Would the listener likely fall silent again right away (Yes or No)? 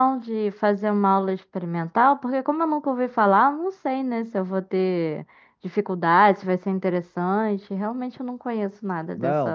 No